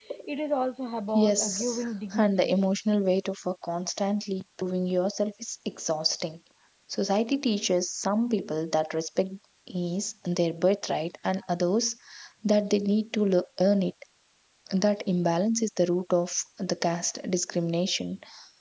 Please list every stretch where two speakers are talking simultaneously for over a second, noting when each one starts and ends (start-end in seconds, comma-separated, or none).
1.1-2.6